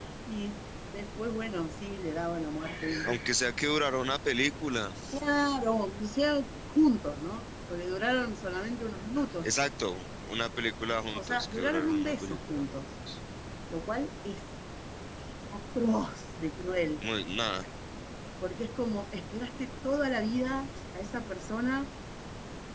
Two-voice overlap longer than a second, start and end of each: 11.1-12.8

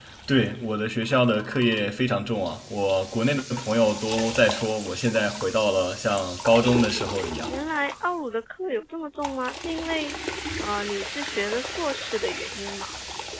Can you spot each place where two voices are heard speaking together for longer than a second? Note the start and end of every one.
none

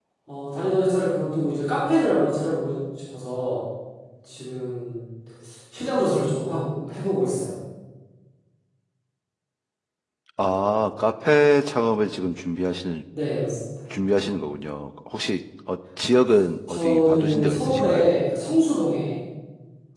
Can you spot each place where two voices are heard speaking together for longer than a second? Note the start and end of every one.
16.7-18.1

